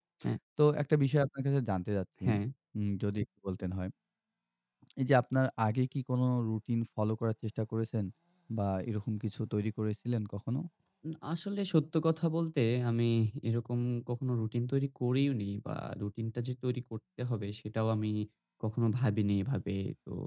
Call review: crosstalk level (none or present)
none